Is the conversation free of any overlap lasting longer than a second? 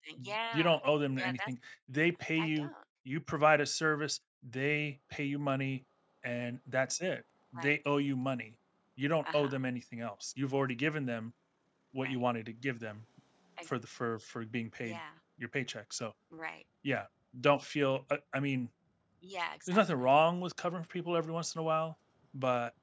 Yes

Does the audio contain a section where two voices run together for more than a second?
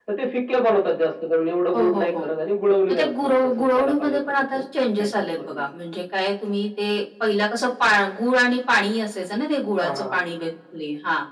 Yes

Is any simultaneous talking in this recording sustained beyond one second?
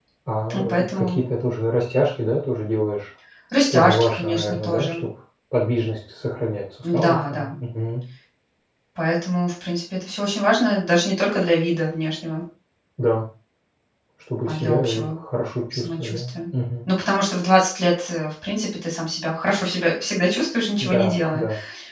Yes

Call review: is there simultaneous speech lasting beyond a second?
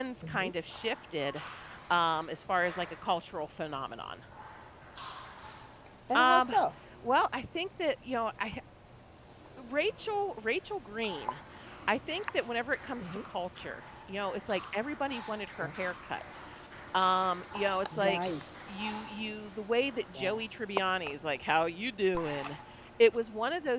No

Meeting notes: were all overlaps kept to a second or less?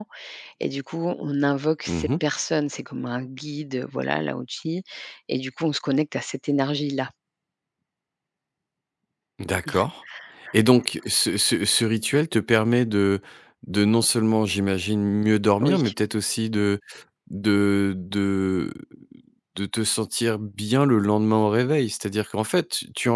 Yes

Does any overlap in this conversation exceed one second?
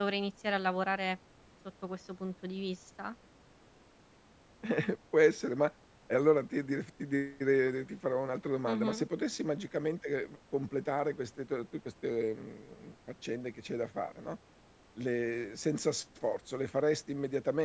No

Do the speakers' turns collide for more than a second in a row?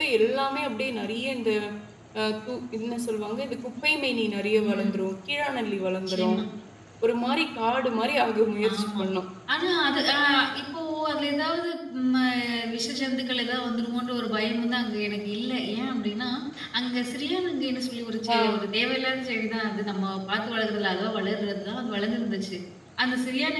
No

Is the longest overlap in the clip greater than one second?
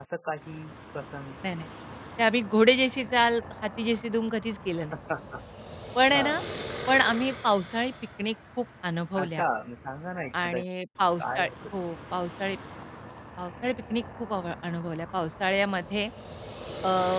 No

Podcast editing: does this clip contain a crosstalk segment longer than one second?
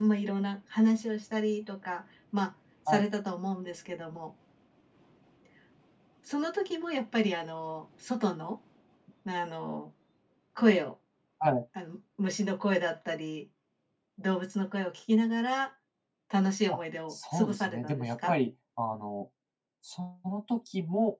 Yes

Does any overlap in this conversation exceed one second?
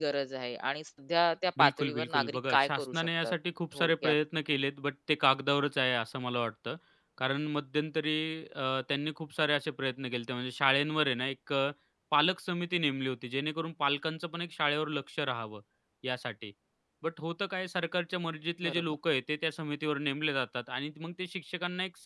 Yes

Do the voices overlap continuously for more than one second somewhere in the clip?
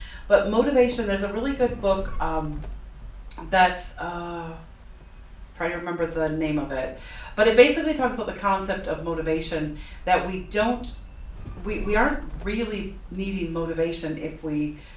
No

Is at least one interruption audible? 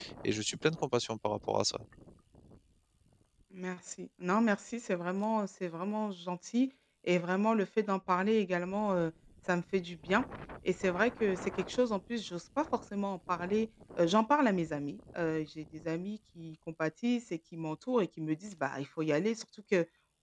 No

